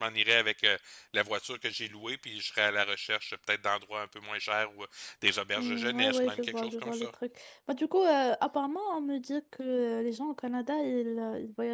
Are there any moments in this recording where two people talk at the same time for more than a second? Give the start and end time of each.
5.6-7.1

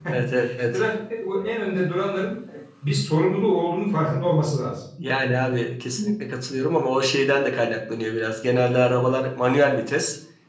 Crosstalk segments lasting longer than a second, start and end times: none

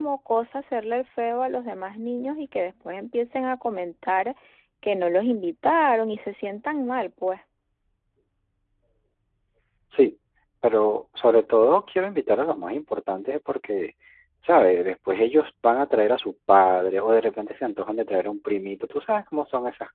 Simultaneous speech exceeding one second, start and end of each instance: none

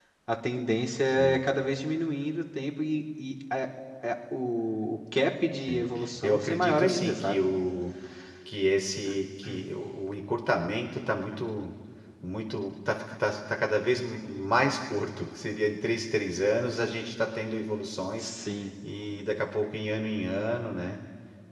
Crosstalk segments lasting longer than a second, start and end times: 5.6-7.4

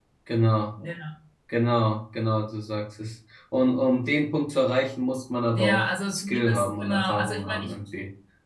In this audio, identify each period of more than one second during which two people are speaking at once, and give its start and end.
5.5-7.7

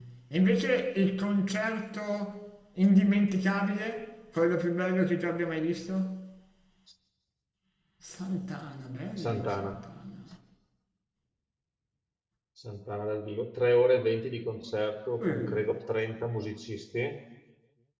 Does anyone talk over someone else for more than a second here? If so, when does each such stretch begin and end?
none

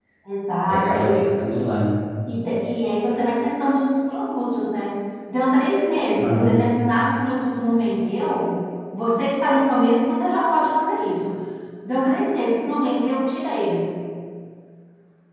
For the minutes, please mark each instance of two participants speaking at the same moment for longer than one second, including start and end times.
none

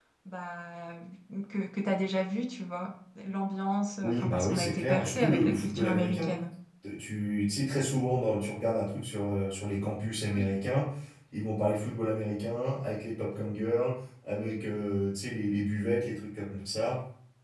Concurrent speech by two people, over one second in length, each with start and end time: 4.0-6.3

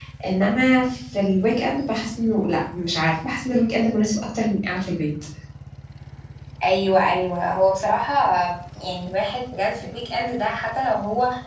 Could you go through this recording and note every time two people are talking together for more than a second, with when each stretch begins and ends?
none

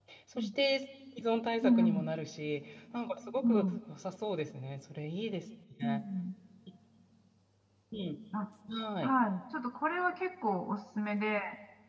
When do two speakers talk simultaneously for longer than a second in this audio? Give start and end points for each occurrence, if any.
none

